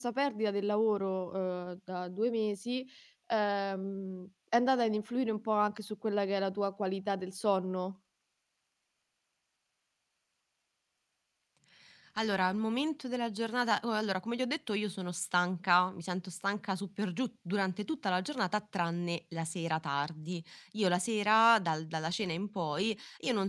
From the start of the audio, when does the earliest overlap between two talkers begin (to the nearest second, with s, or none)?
none